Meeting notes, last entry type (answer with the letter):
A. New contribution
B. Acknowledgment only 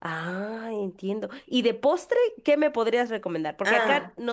B